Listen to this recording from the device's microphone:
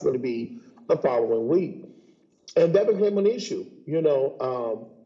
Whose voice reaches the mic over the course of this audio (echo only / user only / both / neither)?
echo only